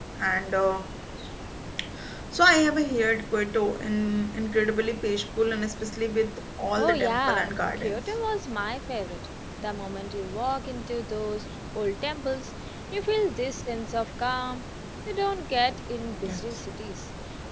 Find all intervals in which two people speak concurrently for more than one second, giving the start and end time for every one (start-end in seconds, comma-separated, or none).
6.8-8.0